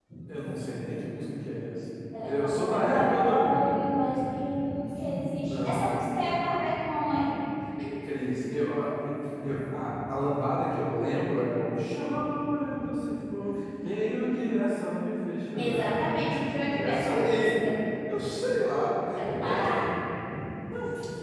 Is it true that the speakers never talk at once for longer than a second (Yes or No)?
No